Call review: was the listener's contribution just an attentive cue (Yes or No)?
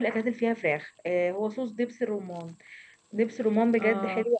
Yes